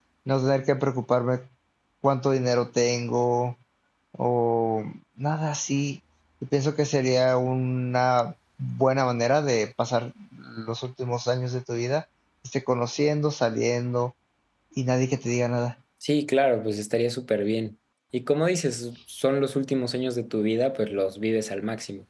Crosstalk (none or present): none